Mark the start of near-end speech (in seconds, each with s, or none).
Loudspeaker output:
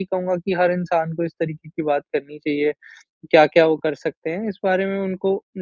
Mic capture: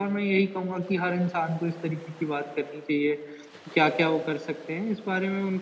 none